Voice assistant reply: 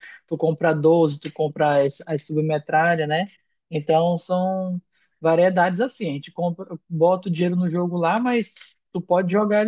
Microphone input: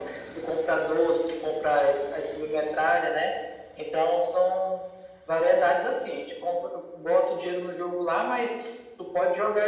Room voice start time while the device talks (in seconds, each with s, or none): none